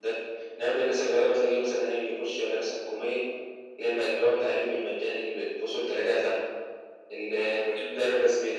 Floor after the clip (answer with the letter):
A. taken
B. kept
B